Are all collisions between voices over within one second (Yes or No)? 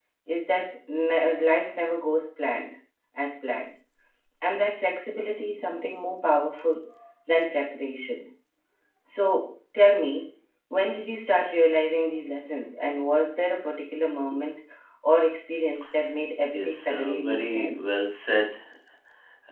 No